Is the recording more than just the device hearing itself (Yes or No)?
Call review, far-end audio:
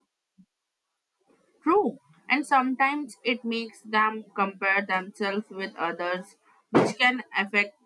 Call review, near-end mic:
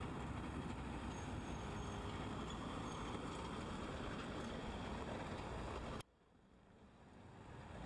No